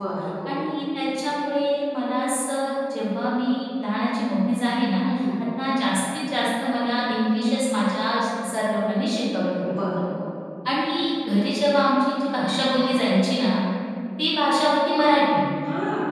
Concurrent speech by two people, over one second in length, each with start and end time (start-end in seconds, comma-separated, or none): none